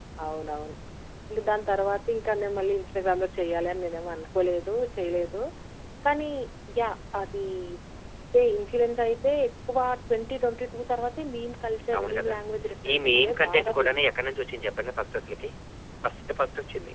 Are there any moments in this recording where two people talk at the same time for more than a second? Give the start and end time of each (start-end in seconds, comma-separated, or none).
12.9-14.1